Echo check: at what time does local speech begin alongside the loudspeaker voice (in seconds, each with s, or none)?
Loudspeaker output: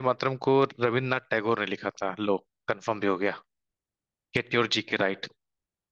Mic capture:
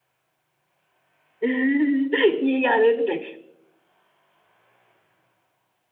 1.4 s